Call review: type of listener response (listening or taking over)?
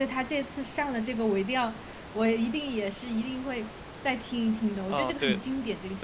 taking over